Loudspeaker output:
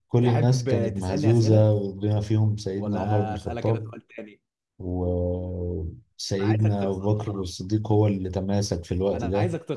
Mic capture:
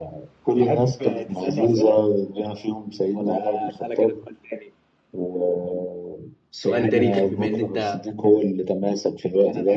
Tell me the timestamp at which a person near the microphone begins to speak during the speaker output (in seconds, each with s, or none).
6.6 s